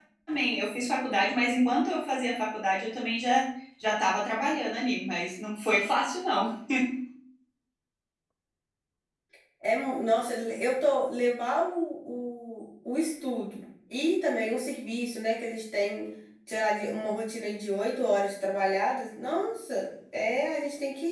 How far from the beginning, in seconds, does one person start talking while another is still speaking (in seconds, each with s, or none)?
none